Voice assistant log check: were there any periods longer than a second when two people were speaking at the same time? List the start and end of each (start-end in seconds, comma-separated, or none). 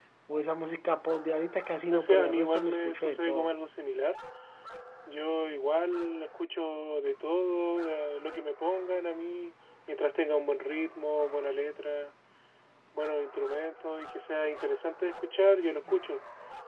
1.9-3.5